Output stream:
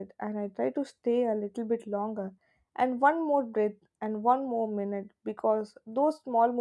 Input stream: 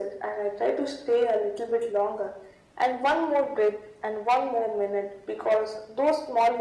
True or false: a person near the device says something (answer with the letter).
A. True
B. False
B